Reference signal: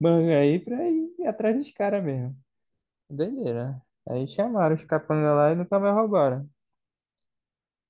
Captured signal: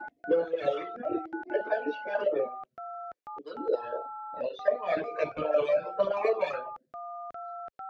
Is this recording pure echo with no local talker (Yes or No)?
Yes